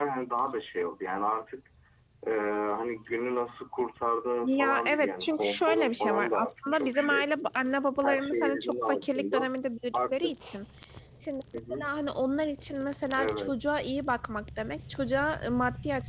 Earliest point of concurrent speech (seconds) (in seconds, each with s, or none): 4.4 s